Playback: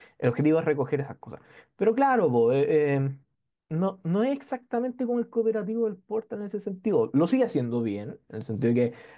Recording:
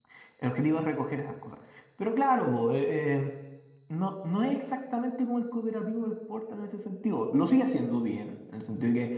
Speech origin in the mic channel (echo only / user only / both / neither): echo only